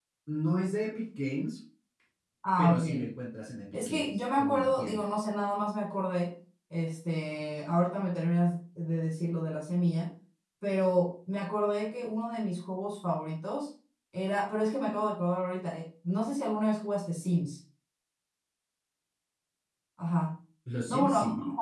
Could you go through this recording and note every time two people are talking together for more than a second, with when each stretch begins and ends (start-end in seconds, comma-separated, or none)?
3.9-5.1